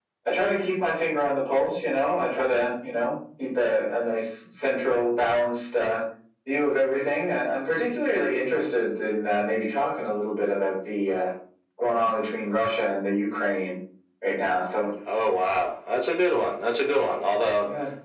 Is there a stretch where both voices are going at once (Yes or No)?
No